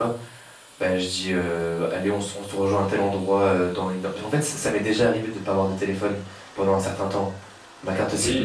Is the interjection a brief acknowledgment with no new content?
No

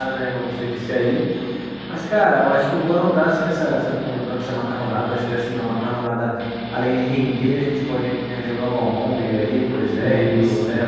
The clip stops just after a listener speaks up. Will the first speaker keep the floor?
Yes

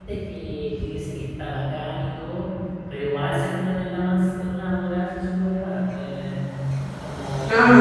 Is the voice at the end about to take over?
Yes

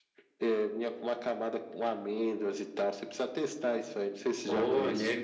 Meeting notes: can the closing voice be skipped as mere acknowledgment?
No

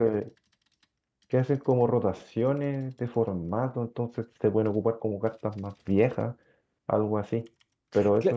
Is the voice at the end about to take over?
No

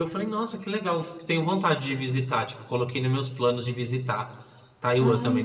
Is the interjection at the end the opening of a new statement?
Yes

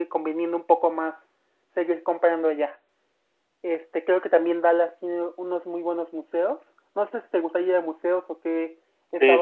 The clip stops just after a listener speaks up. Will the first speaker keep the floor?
No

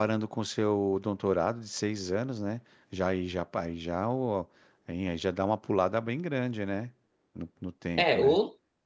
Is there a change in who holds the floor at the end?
Yes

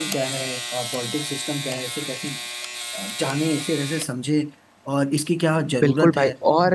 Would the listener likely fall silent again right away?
No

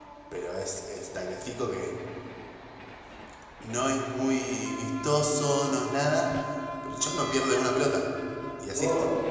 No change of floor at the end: No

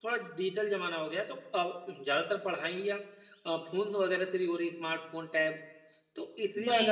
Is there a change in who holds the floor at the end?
No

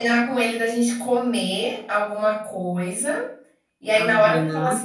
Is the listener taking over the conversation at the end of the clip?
No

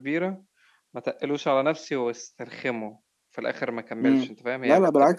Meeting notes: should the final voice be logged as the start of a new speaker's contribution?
Yes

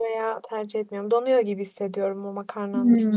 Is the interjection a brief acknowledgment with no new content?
No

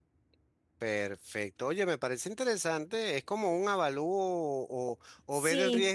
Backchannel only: Yes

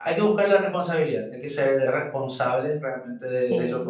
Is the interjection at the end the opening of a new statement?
Yes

